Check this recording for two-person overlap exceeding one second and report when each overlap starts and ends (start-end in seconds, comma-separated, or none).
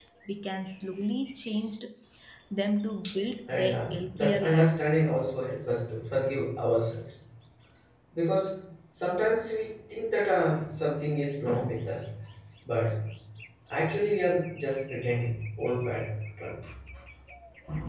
3.5-4.7